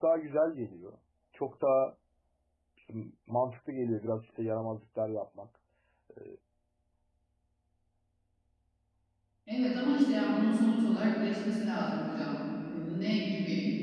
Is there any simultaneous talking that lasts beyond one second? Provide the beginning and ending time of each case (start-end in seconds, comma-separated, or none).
none